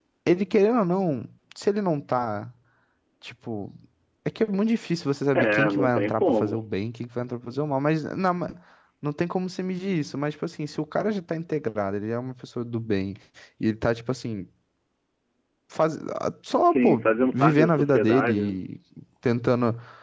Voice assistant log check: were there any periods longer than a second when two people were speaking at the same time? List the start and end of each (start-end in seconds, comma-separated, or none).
5.3-6.7, 16.6-18.3